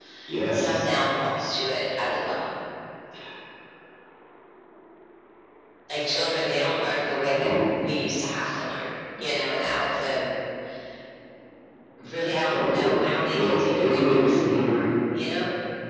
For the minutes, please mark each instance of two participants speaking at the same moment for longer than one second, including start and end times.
13.3-14.8

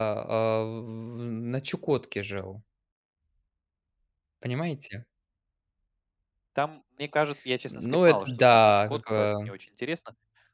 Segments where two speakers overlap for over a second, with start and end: 7.7-9.5

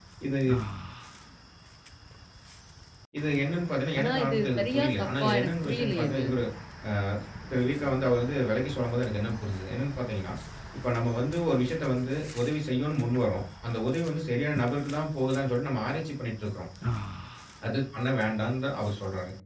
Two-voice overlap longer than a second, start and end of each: 4.0-6.3

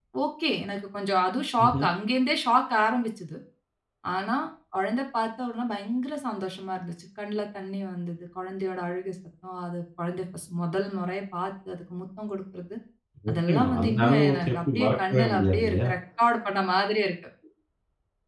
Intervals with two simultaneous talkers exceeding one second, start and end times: 13.3-15.9

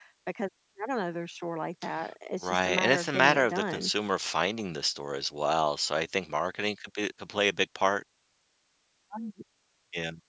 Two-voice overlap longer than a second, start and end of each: 2.4-3.9

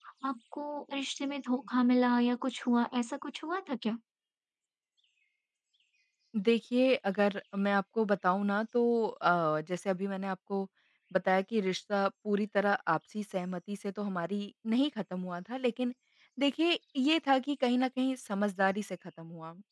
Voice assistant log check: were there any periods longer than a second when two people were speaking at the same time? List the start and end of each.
none

